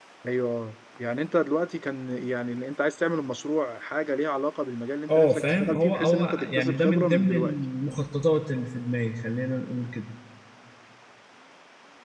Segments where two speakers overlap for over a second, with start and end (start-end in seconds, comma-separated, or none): 5.1-7.5